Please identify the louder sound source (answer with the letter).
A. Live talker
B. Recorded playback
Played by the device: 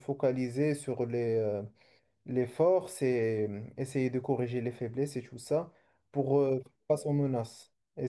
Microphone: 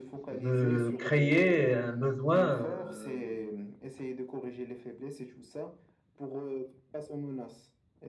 A